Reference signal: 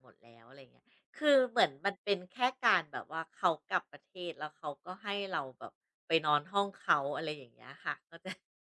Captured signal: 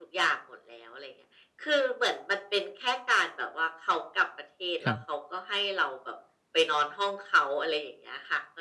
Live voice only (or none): ครับ